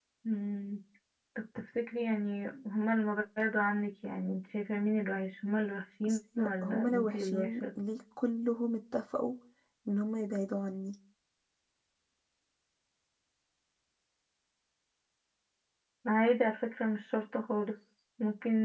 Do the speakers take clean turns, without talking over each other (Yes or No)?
No